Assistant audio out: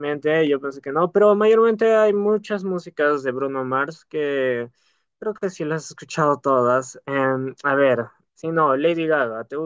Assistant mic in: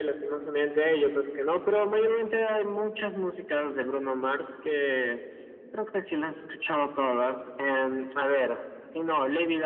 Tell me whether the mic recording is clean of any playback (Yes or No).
No